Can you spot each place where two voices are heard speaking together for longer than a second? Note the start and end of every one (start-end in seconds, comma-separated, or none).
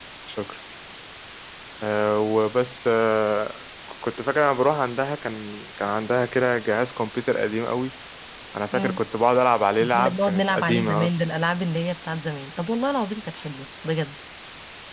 10.0-11.3